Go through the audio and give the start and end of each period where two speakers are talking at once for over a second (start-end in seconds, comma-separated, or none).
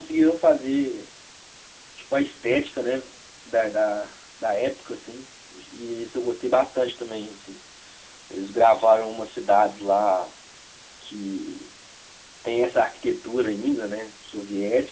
none